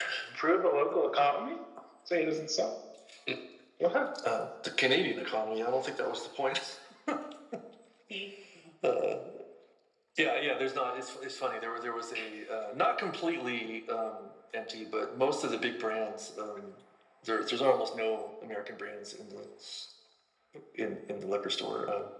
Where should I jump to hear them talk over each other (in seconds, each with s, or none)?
none